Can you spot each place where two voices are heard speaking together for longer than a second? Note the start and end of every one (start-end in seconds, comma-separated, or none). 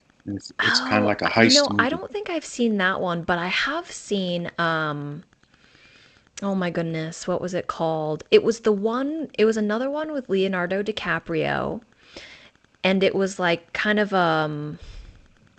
0.6-2.0